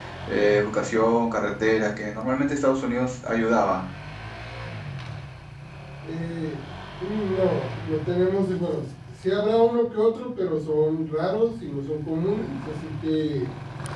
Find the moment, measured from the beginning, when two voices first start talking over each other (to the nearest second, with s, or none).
none